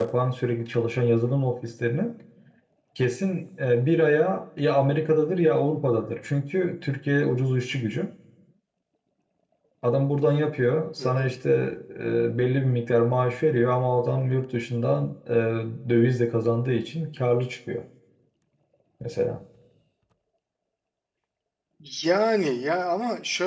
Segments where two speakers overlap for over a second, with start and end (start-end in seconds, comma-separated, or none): none